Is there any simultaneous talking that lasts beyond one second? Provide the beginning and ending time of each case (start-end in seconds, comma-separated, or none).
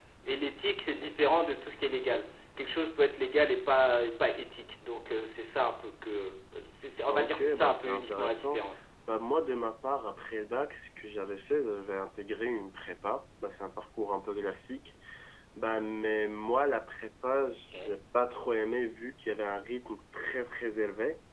7.1-8.6